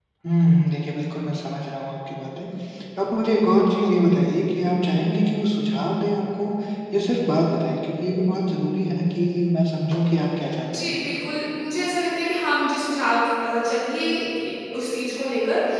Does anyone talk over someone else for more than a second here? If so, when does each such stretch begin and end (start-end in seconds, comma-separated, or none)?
none